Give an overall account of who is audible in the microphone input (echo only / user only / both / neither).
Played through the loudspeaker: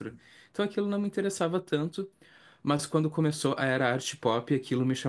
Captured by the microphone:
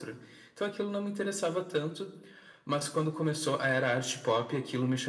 echo only